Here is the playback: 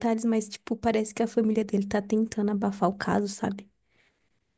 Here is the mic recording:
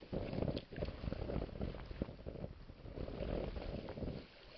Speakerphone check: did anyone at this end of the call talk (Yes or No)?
No